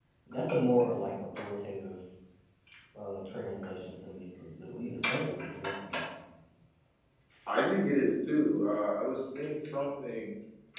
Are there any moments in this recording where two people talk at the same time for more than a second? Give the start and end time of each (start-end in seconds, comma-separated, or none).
none